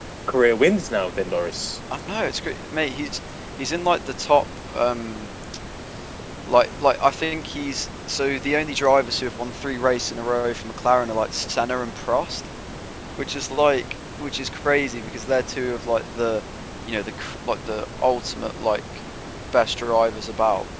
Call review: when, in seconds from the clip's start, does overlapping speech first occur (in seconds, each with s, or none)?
none